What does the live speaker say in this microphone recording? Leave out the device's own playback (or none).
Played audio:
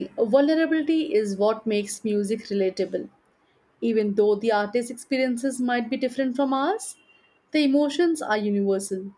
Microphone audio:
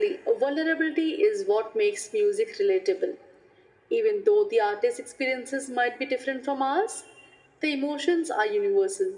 none